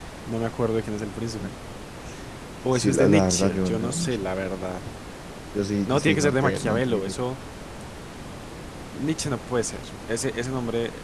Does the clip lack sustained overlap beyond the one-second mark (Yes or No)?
No